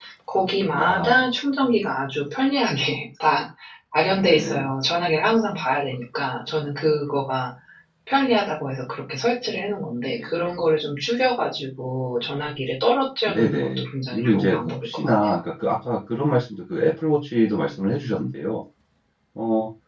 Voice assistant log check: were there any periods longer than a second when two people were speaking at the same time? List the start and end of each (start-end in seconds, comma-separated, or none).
13.3-15.3